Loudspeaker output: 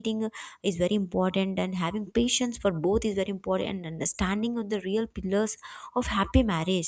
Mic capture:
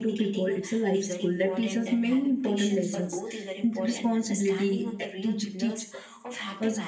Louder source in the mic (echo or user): user